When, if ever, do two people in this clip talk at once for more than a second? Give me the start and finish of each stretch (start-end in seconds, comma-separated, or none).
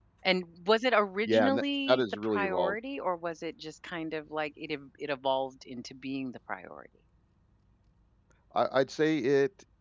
1.2-2.7